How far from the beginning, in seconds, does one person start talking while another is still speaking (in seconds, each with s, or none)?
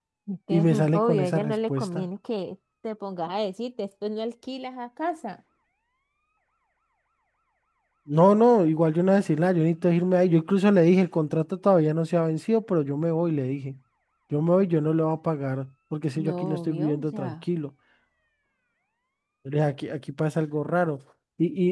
0.5 s